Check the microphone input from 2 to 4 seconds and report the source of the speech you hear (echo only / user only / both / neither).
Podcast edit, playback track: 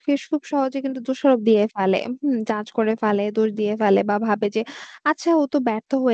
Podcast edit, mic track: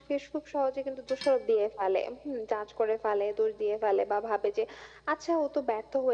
echo only